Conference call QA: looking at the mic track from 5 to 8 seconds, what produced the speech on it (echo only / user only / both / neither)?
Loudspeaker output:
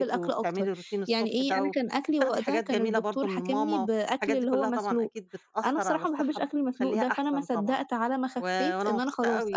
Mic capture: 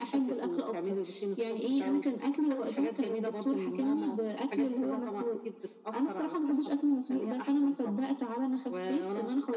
echo only